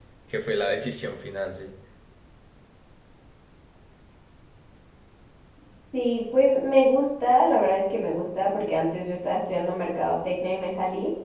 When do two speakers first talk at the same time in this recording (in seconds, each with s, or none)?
none